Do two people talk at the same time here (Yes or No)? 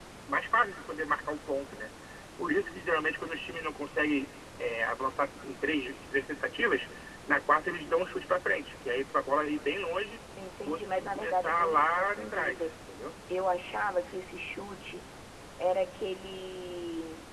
Yes